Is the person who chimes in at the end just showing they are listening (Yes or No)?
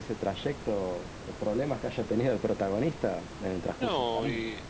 No